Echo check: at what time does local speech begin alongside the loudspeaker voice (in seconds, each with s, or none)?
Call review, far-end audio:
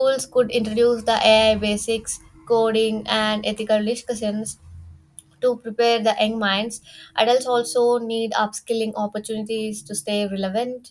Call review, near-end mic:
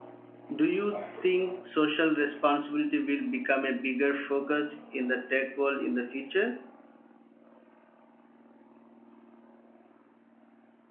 0.6 s